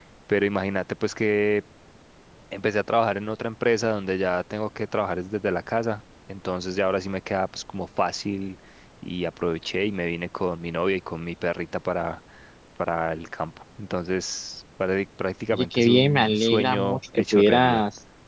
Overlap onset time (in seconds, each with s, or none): 15.5 s